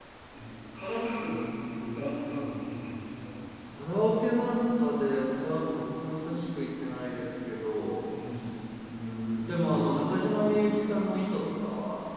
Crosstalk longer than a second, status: none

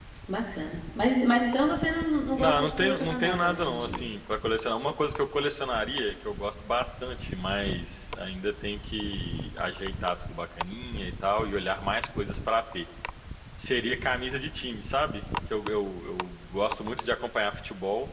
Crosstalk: present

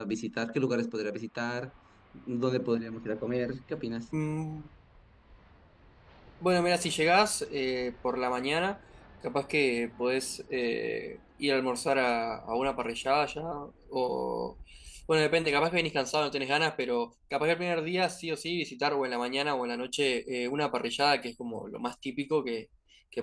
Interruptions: none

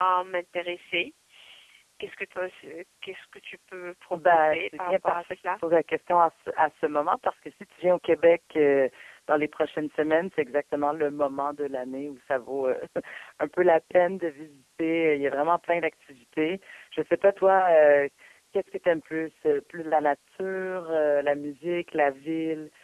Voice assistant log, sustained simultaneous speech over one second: present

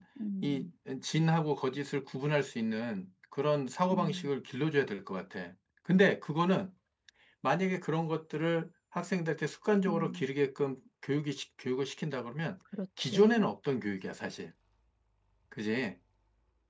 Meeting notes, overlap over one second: none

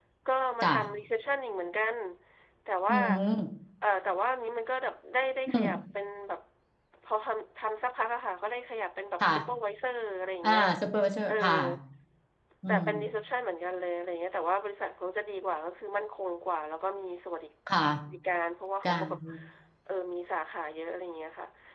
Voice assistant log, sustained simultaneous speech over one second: none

